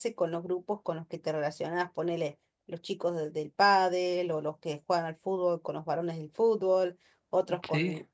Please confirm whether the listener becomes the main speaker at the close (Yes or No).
No